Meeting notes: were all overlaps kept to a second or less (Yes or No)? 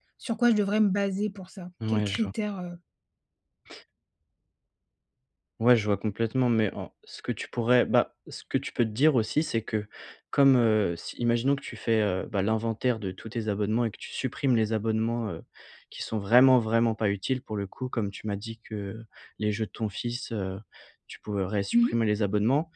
Yes